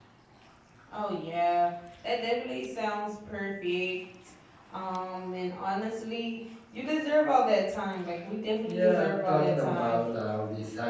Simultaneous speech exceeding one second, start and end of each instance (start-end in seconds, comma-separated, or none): 8.6-10.1